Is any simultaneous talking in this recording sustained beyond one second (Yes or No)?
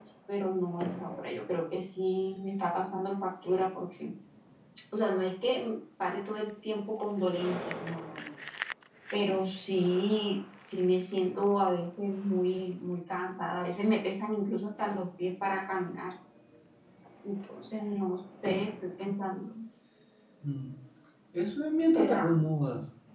No